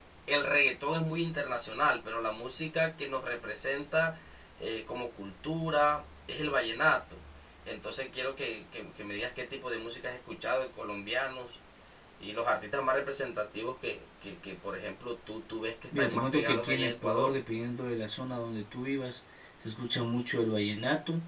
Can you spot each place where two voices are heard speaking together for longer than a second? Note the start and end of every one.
15.9-17.4

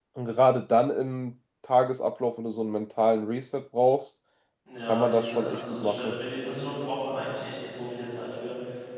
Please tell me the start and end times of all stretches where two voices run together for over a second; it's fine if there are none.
4.9-6.2

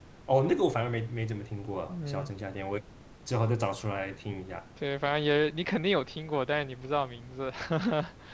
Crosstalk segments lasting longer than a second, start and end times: none

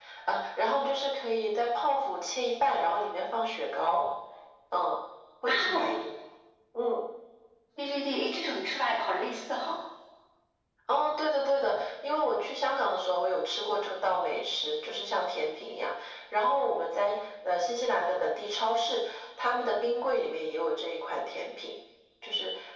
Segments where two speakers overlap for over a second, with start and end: none

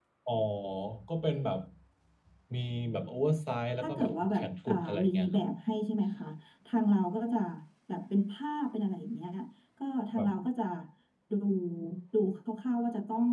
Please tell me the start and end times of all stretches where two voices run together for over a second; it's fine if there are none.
3.8-5.4

